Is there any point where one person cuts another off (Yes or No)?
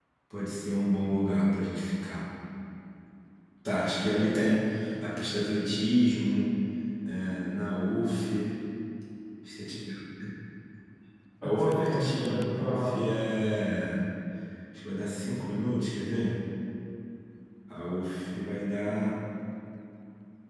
Yes